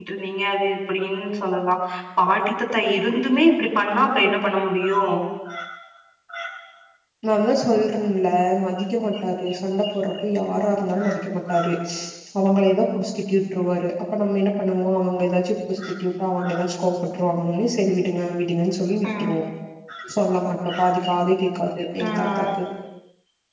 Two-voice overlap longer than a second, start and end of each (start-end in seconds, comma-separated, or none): none